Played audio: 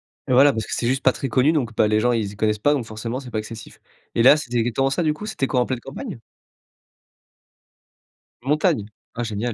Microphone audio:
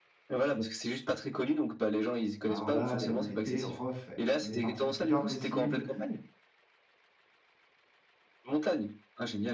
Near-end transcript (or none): Alors là, les on a été refaits. On est parti le plus tard possible.